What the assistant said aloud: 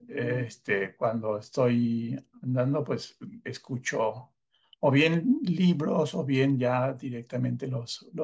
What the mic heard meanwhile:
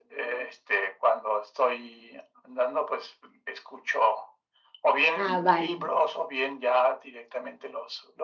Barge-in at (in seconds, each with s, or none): 5.1 s